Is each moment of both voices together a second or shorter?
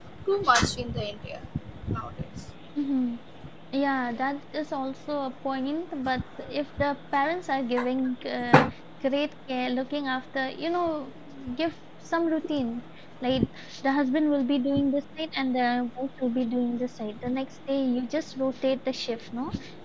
Yes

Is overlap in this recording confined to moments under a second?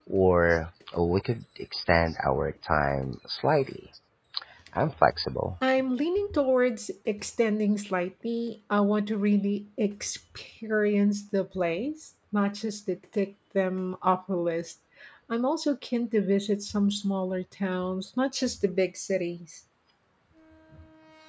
Yes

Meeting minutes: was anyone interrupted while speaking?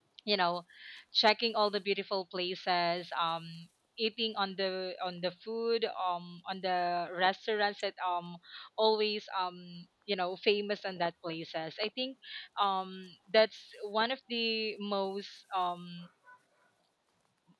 No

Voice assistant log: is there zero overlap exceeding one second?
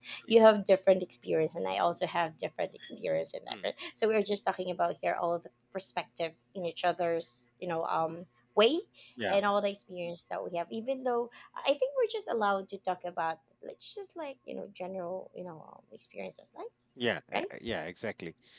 Yes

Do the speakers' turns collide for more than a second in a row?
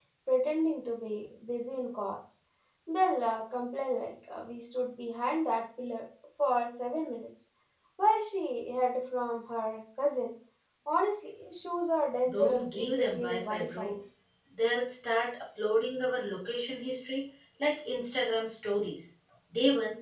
Yes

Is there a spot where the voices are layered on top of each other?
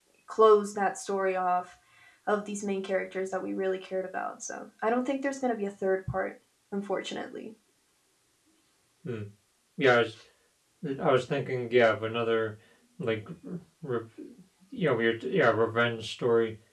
No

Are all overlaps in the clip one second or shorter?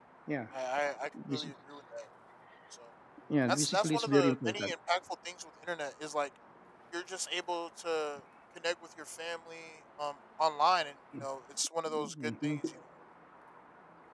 No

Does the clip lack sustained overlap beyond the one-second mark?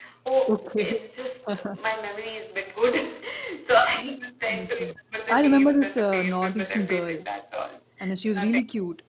No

